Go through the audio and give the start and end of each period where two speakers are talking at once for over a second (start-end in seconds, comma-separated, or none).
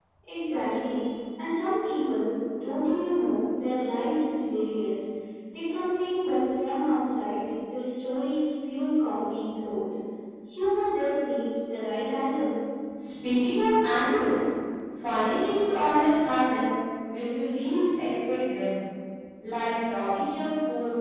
none